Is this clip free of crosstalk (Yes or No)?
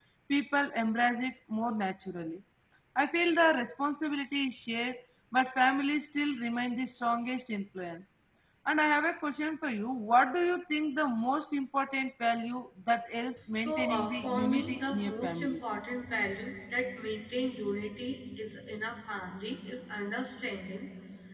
No